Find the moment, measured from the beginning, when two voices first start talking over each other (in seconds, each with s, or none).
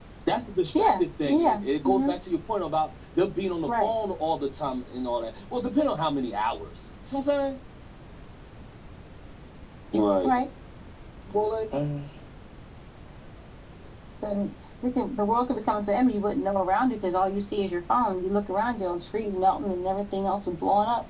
0.8 s